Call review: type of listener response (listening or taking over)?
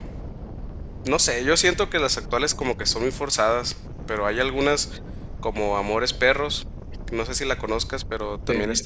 taking over